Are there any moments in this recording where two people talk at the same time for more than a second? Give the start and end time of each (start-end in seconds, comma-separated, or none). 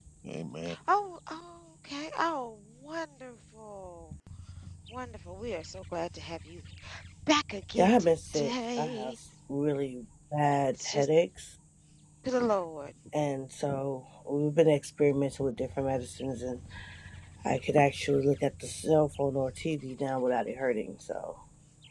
7.7-9.1